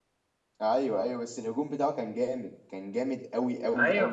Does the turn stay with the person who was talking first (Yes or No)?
No